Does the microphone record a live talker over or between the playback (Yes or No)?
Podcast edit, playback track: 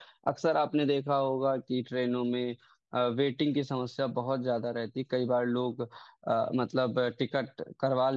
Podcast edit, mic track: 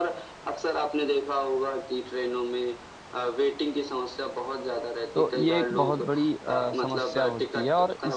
Yes